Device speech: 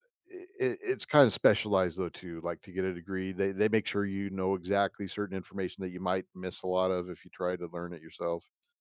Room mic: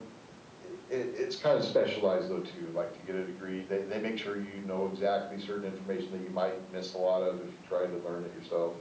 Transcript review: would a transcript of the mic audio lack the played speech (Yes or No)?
No